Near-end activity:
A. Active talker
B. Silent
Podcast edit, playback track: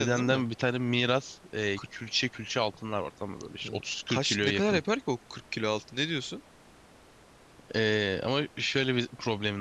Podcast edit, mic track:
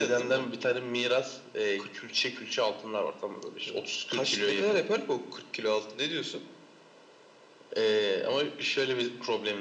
B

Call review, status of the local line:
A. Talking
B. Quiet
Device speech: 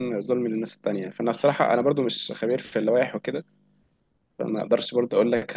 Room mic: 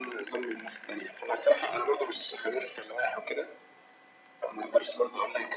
B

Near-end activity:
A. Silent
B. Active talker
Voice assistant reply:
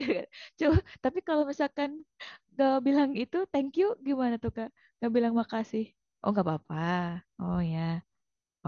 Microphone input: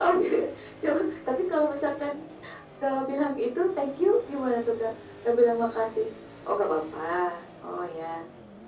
A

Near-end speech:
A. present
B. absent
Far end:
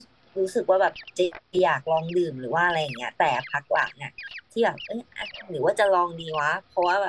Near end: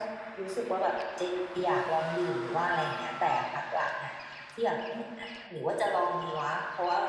B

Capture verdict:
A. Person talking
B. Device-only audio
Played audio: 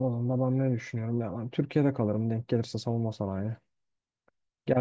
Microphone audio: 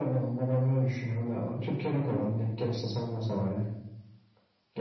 B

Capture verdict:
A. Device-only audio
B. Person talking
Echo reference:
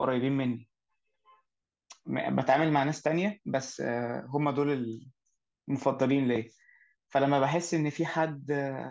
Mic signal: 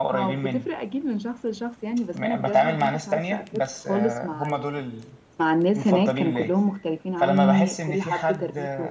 B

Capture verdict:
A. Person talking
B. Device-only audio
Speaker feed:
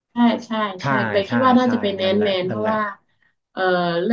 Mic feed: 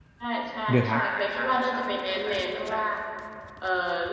A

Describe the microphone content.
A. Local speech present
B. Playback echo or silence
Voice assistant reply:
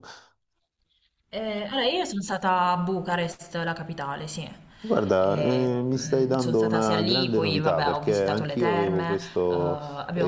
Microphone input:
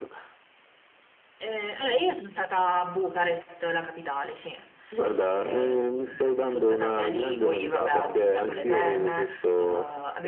A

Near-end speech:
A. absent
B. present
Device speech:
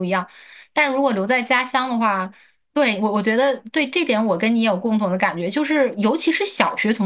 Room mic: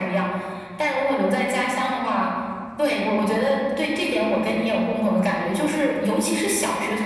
A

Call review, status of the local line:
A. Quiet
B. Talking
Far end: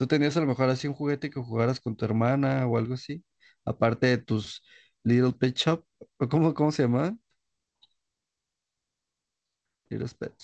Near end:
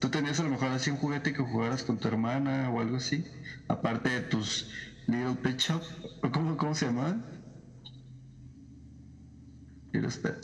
A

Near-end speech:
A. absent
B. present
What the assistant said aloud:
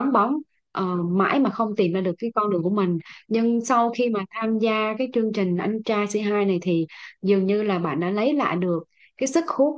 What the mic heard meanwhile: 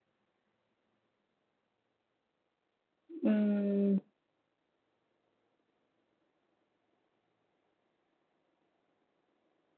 B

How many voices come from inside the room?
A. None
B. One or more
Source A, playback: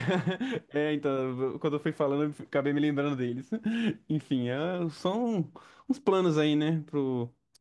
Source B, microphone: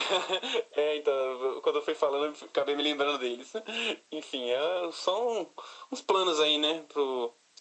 A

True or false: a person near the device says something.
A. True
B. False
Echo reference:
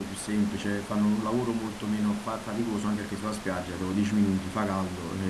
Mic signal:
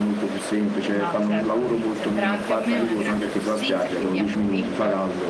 A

